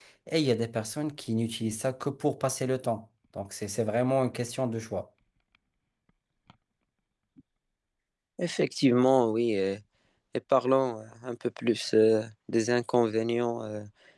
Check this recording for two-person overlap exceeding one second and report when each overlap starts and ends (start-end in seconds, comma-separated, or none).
none